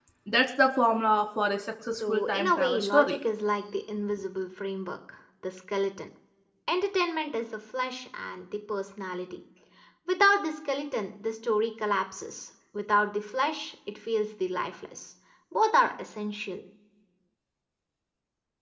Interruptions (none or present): present